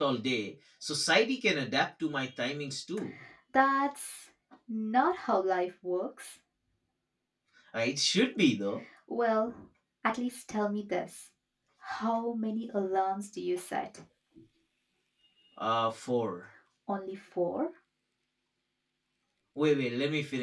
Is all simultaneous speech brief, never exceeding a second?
Yes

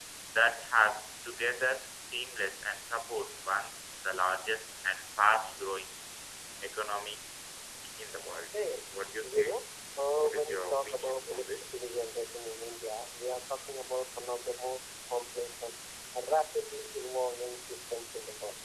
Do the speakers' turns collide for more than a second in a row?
Yes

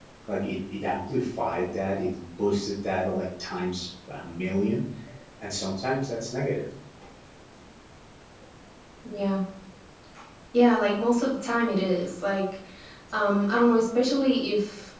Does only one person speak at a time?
Yes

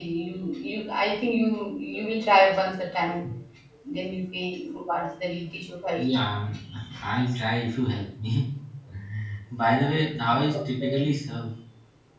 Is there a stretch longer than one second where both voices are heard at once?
No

